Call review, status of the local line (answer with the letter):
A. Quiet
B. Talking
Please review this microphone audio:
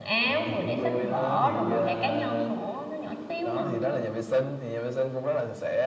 B